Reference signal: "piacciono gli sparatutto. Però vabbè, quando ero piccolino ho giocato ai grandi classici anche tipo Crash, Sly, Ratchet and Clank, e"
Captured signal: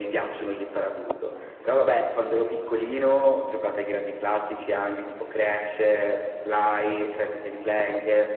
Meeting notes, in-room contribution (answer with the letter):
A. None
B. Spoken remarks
A